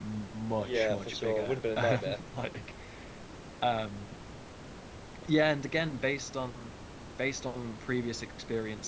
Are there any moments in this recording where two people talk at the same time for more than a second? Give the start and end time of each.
0.6-2.2

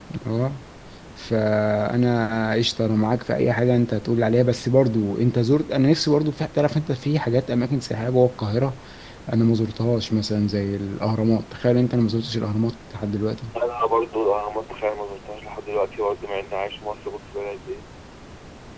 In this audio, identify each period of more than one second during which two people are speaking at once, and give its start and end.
none

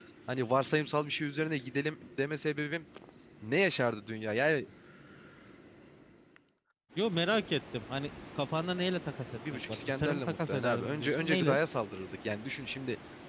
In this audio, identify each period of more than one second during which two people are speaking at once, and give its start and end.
9.7-11.6

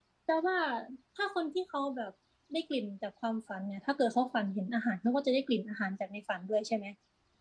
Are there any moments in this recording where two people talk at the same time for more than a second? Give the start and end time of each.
none

